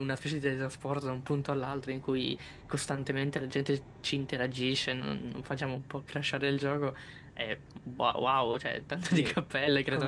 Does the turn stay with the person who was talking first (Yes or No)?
No